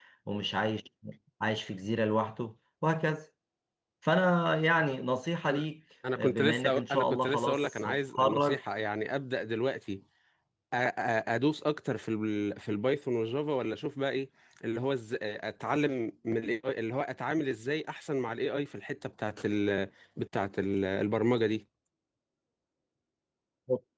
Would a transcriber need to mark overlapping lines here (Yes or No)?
Yes